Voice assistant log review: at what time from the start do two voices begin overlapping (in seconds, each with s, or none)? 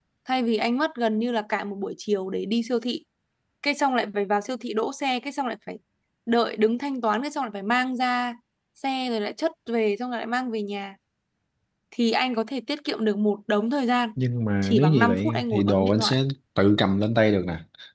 14.6 s